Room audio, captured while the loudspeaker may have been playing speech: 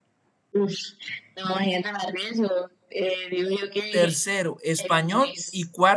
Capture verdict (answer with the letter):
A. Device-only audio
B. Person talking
B